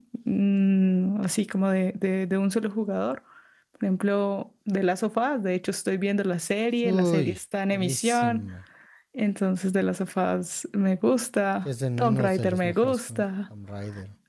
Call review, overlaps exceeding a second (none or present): present